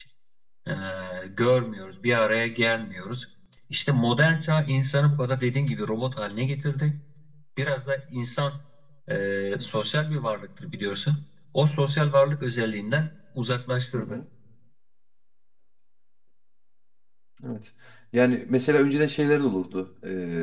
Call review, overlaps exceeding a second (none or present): none